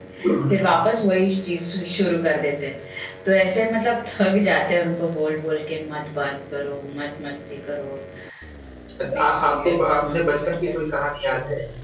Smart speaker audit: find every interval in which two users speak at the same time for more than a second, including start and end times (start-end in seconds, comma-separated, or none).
9.2-10.7